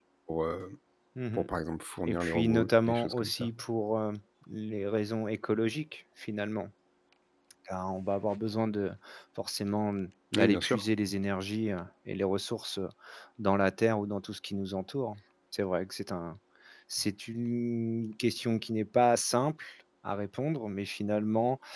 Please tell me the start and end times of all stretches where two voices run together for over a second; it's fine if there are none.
2.1-3.5

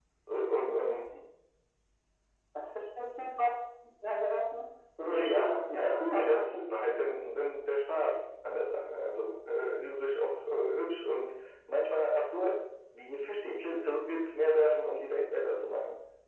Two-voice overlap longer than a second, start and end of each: 5.0-6.7

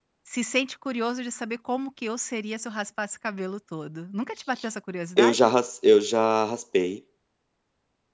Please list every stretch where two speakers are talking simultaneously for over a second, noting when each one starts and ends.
none

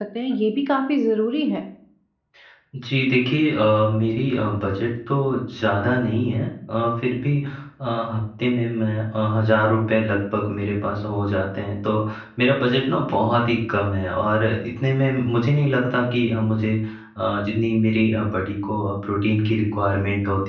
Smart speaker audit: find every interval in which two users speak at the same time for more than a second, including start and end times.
none

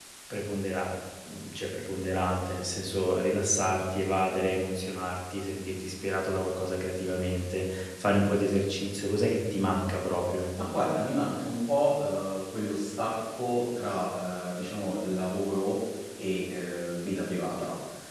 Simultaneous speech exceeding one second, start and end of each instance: none

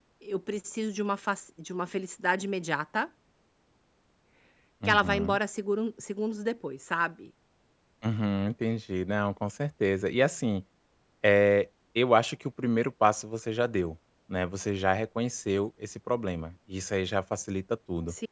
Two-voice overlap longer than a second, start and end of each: none

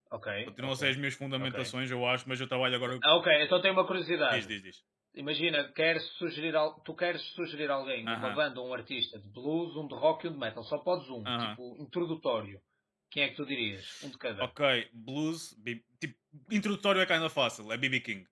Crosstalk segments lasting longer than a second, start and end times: none

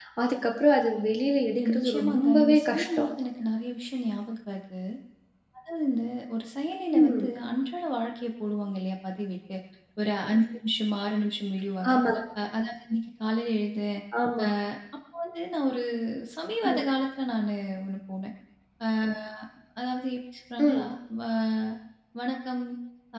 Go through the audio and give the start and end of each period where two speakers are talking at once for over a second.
1.6-3.0

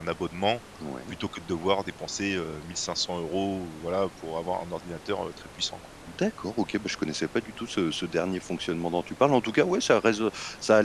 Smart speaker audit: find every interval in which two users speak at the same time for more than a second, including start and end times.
none

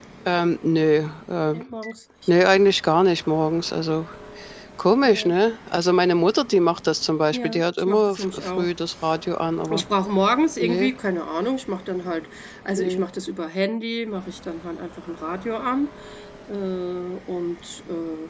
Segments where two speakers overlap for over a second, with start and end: 7.3-8.7

